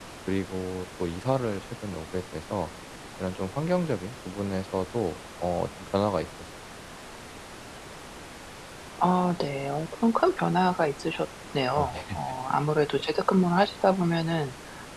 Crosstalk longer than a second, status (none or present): none